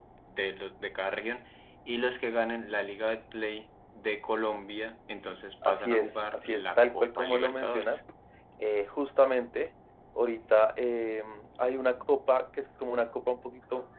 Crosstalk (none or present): present